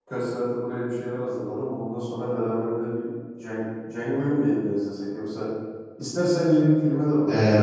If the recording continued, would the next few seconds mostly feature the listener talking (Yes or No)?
Yes